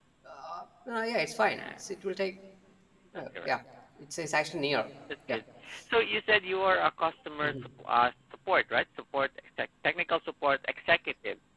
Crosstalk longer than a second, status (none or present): none